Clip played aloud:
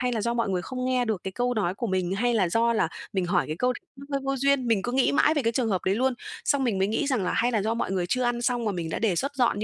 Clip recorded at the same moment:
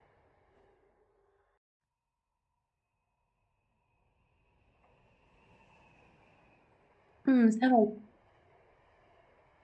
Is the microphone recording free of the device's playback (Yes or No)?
Yes